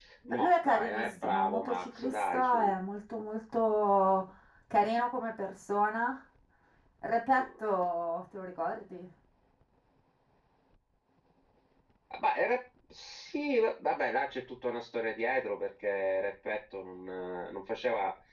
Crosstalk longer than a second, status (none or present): present